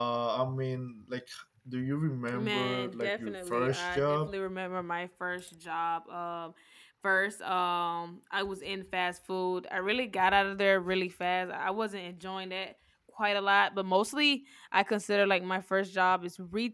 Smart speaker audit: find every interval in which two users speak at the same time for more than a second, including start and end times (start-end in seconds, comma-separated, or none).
2.3-4.3